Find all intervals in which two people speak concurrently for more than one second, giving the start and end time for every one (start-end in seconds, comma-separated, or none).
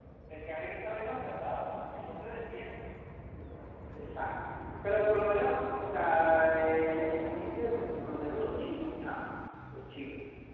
none